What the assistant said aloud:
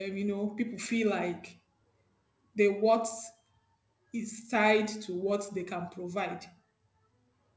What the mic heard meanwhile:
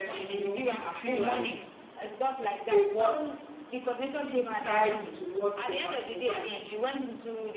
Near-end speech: present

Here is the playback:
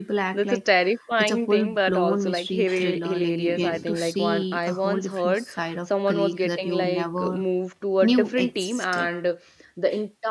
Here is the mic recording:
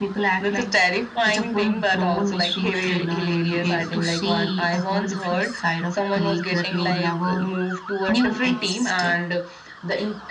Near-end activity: none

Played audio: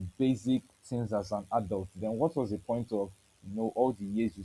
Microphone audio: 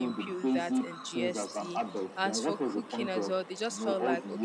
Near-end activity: present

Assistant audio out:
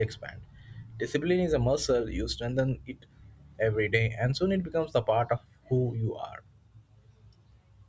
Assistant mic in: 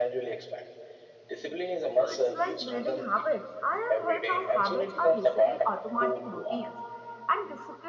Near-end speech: present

